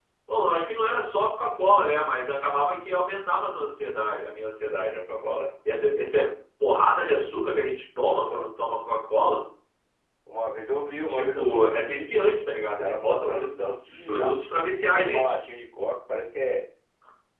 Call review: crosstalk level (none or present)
present